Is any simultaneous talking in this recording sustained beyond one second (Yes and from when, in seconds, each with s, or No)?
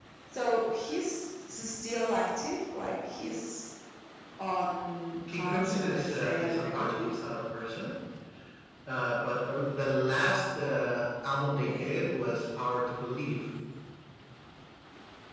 Yes, from 5.3 s